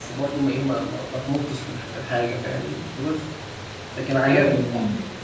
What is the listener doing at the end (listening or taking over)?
taking over